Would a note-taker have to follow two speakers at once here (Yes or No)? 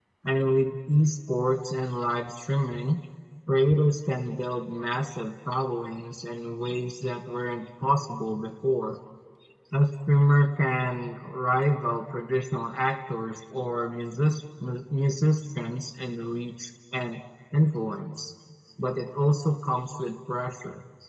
No